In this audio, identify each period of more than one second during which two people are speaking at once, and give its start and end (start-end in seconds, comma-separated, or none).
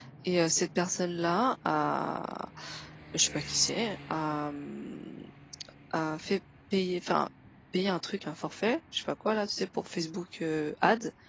none